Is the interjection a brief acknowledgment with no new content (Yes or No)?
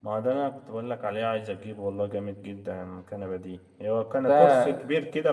Yes